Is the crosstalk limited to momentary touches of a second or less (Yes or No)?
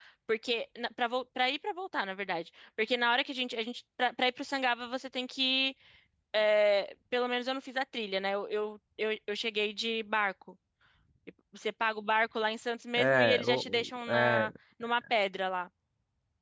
No